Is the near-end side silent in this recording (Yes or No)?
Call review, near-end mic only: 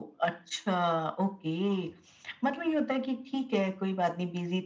Yes